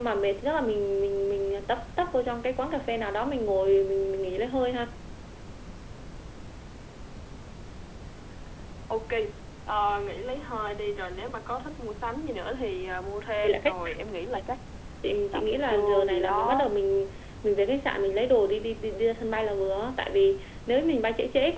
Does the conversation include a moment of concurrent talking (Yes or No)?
Yes